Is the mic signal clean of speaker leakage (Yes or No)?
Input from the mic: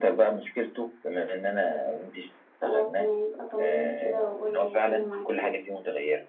No